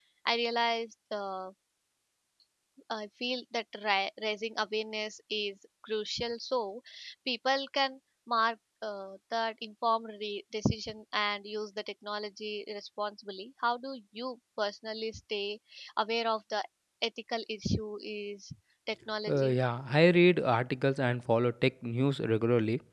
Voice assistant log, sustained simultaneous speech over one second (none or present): none